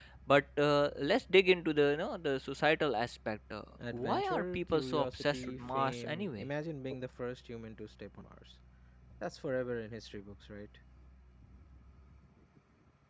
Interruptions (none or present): present